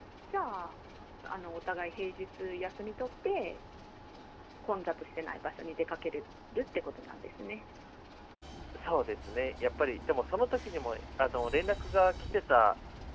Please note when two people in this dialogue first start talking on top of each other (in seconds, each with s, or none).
none